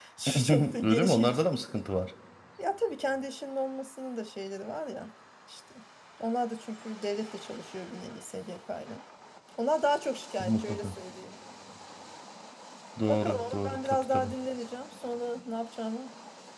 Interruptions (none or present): present